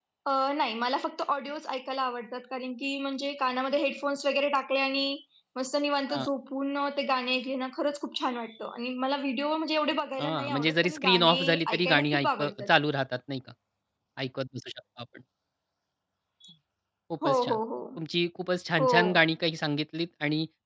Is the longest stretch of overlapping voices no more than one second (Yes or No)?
No